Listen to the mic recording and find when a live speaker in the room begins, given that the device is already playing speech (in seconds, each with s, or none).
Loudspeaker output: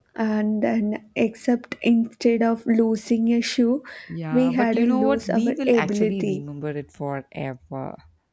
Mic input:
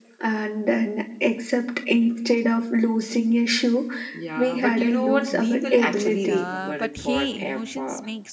6.0 s